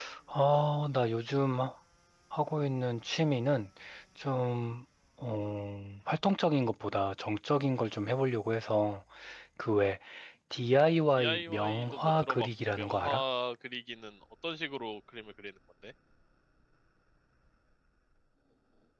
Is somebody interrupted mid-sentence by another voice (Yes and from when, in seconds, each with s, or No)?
Yes, from 11.2 s